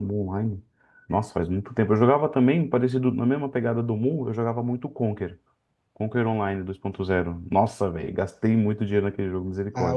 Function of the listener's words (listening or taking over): taking over